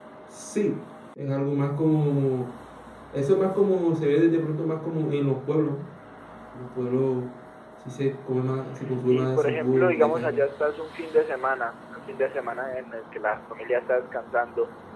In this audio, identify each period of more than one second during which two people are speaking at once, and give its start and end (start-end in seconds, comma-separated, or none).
9.1-10.4